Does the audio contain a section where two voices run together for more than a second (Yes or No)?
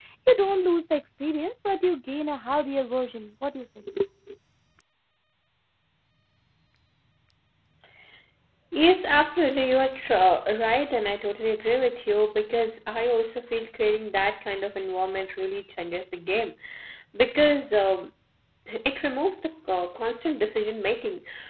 No